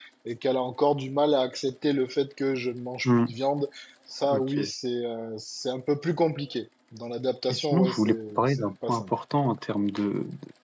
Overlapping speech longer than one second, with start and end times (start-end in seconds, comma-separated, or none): 7.5-9.0